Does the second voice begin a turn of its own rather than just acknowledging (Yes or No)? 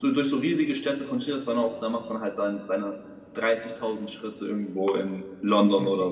Yes